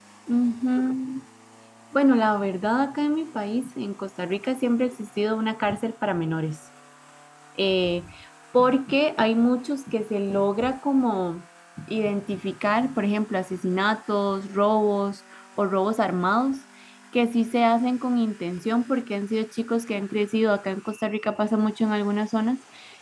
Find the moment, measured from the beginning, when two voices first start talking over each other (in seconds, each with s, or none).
none